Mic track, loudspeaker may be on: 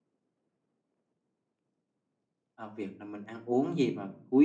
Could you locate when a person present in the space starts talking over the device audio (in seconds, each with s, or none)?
2.5 s